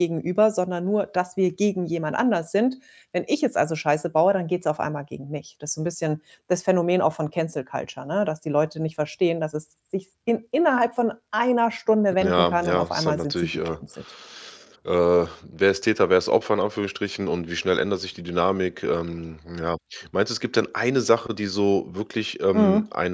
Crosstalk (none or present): present